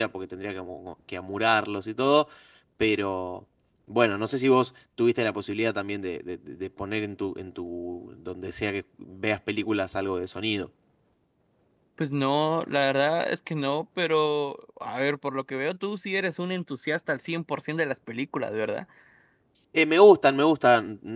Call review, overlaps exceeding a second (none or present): none